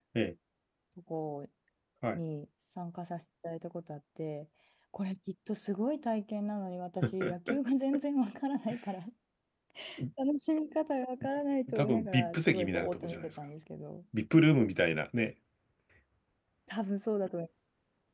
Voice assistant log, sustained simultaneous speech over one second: present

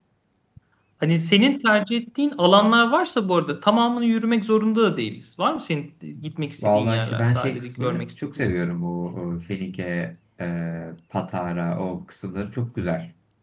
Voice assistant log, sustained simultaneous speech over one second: present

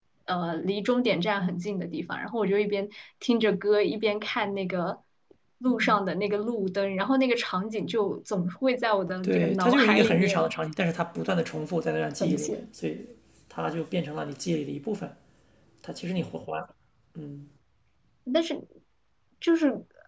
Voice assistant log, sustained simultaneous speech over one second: present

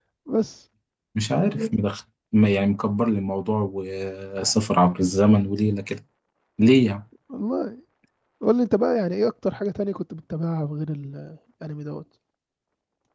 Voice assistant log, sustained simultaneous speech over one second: none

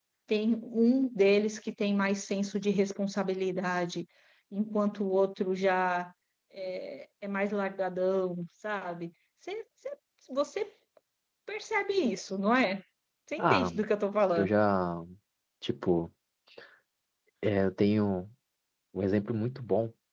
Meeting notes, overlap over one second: none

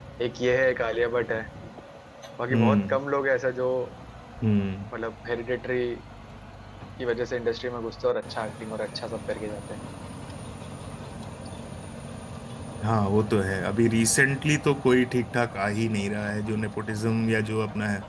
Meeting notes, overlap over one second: none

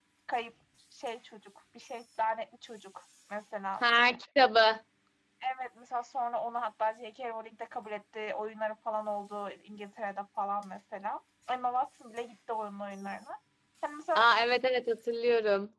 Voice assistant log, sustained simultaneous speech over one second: none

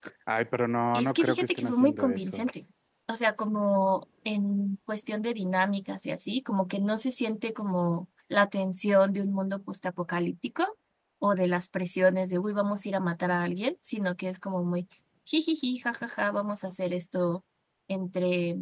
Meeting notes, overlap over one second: present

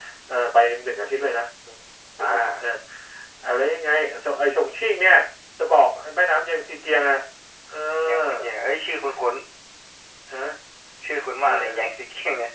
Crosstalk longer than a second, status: none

